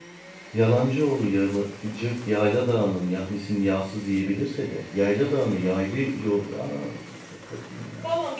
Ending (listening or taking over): taking over